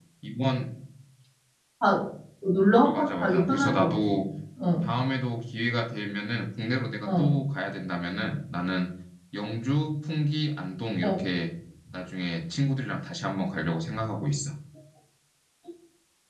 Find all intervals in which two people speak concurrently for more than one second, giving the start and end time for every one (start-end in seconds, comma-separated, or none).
2.9-4.1